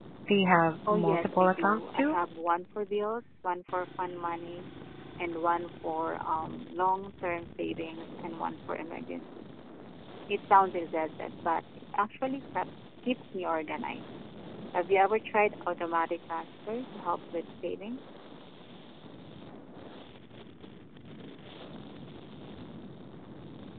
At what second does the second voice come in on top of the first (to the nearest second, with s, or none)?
1 s